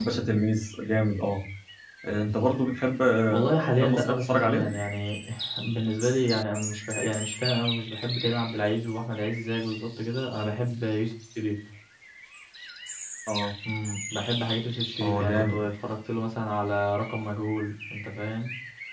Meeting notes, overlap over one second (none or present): present